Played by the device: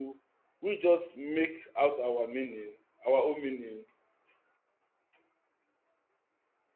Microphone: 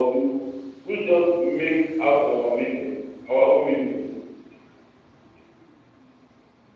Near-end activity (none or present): none